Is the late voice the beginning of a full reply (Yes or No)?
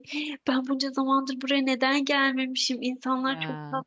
No